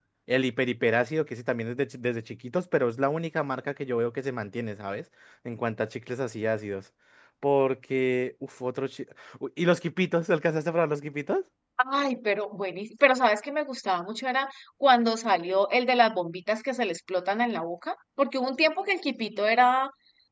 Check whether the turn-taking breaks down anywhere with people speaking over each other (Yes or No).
No